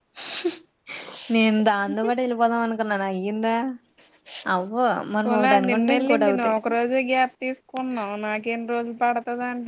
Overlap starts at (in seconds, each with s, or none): 5.2 s